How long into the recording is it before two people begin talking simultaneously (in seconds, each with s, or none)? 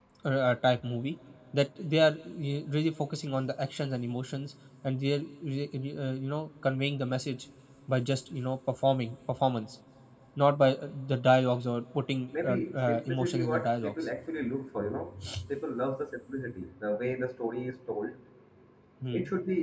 12.4 s